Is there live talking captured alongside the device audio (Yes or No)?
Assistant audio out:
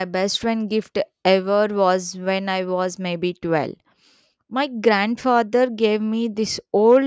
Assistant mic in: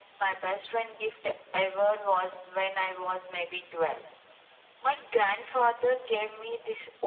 No